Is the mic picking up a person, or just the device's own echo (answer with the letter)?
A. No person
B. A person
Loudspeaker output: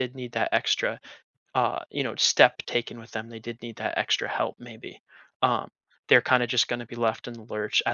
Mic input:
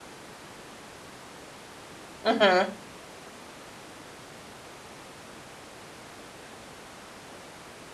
B